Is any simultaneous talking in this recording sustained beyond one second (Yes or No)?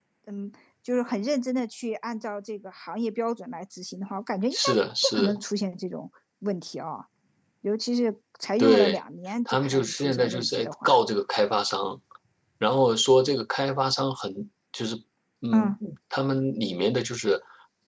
Yes